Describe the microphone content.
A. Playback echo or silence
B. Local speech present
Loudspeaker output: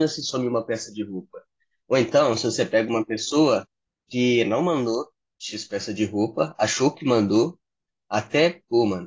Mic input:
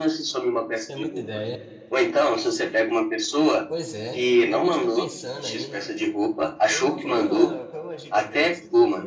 B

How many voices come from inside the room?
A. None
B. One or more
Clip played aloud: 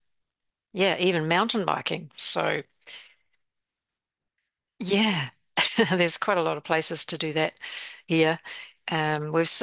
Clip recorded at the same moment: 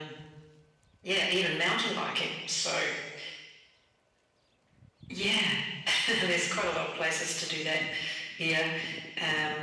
A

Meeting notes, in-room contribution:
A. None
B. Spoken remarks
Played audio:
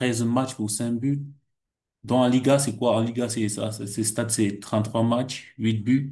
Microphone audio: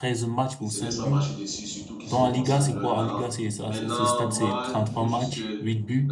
B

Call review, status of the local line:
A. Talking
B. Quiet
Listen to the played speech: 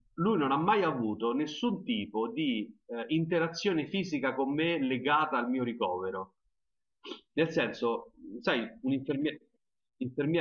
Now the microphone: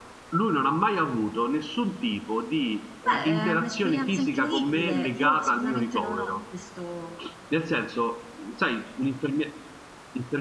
A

